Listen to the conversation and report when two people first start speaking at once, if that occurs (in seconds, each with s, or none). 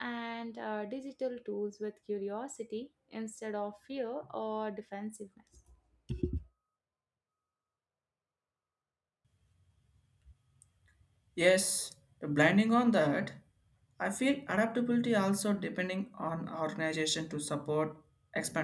none